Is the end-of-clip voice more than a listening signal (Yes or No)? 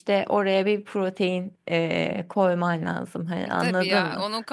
Yes